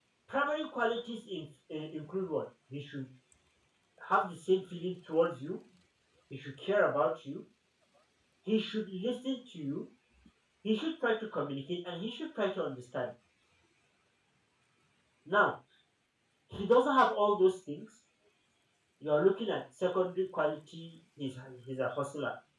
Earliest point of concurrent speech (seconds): none

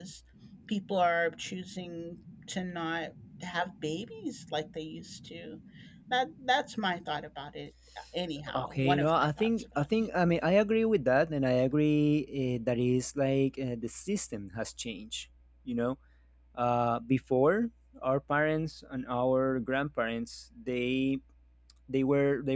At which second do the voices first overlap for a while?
9 s

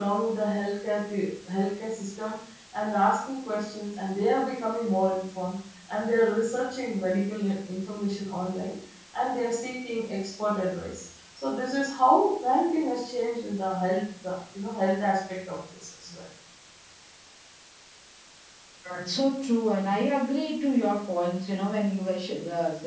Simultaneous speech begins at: none

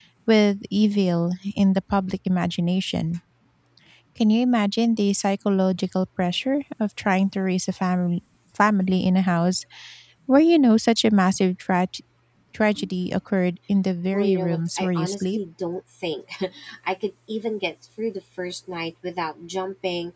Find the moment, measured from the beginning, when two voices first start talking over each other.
14 s

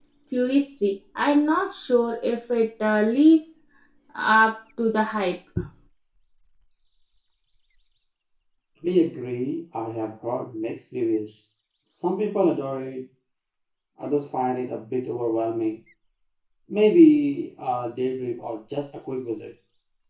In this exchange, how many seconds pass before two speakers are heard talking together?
none

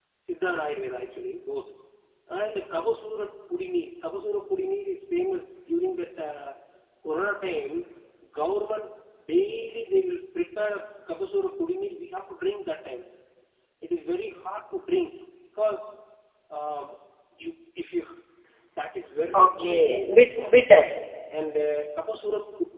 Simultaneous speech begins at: 19 s

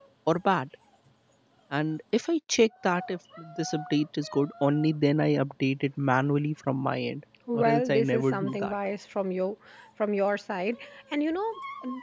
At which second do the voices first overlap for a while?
7 s

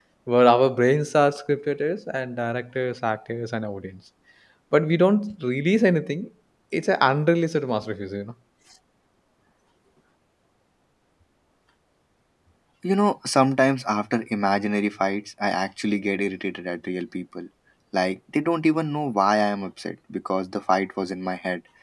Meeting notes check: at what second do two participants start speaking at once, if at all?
none

